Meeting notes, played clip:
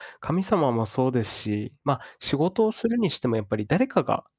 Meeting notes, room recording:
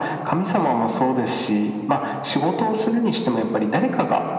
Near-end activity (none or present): none